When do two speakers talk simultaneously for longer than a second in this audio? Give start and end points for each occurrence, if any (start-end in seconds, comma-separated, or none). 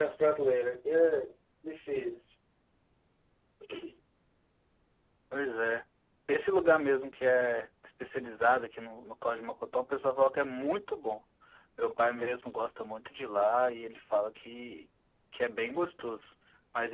none